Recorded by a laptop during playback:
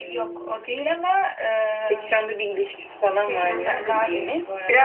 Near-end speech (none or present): present